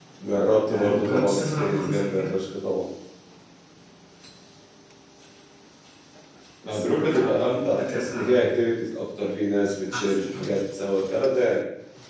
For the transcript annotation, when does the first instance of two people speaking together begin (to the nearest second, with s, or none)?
1 s